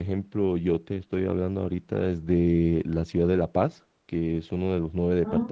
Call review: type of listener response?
listening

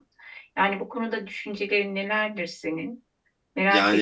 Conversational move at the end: taking over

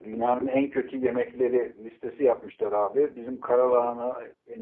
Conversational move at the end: listening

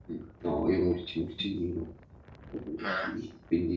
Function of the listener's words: listening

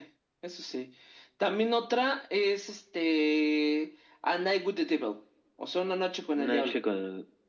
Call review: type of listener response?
taking over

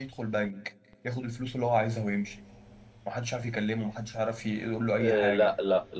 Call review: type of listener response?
taking over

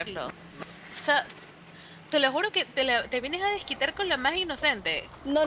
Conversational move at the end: taking over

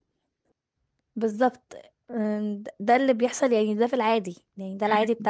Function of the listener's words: listening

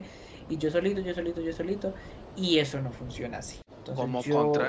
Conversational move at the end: taking over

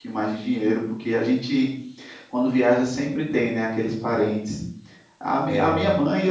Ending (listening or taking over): listening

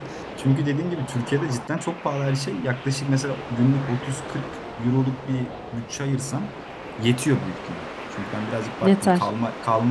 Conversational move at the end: listening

